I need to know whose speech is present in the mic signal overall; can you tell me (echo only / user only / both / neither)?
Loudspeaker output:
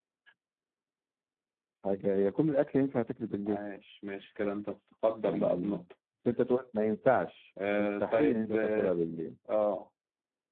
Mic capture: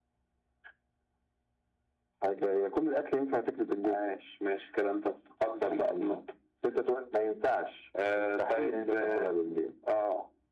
both